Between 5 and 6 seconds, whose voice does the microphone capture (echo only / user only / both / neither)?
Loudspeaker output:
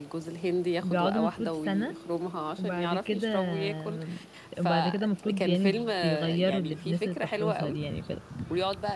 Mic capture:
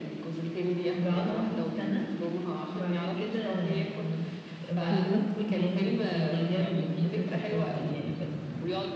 both